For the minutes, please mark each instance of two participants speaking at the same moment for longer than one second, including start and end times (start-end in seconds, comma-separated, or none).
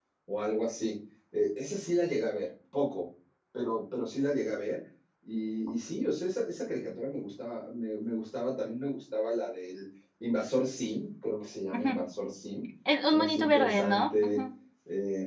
13.1-14.4